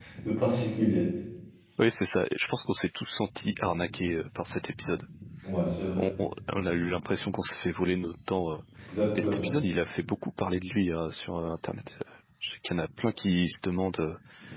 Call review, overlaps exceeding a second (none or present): none